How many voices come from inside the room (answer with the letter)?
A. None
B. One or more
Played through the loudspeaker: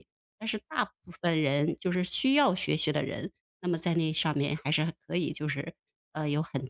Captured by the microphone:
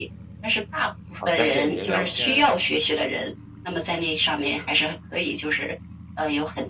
B